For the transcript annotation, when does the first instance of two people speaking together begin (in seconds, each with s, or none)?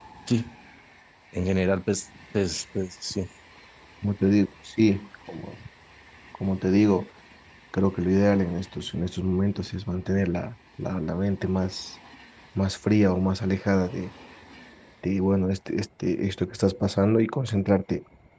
none